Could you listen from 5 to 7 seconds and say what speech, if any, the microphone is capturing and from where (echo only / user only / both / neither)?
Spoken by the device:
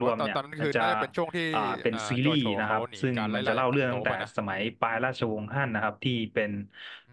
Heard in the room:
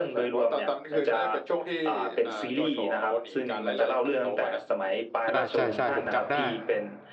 both